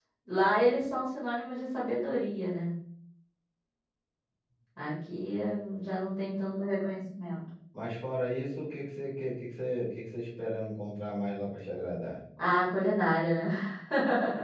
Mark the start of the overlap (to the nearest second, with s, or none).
none